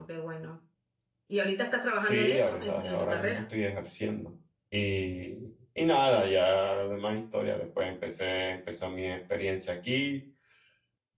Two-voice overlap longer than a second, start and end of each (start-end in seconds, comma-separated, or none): 2.0-3.4